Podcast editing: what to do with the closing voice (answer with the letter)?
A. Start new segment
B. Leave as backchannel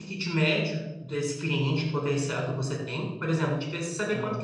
B